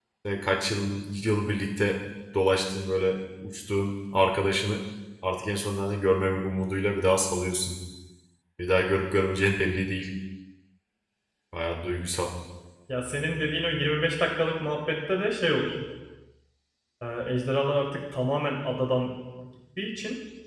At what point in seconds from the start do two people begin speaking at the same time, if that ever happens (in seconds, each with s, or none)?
none